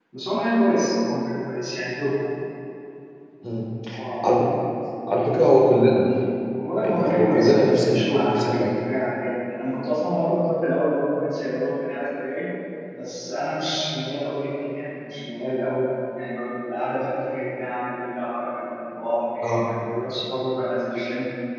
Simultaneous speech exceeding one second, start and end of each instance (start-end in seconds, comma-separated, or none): 6.8-8.6